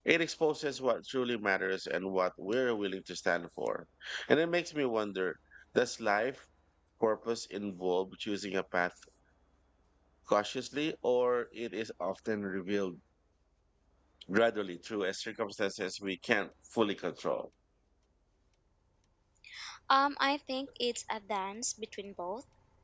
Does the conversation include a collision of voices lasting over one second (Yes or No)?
No